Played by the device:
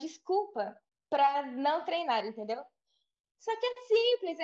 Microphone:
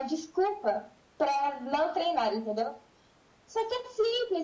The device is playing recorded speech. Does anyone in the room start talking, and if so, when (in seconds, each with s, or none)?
none